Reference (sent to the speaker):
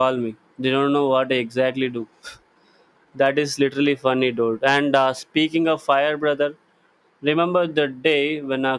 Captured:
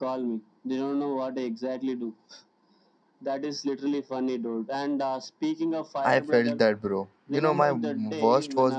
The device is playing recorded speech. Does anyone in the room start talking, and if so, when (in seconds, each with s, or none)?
6.0 s